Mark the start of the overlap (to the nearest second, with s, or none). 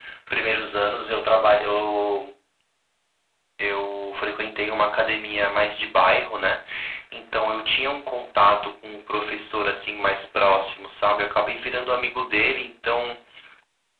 none